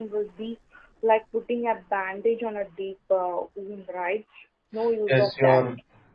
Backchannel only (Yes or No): No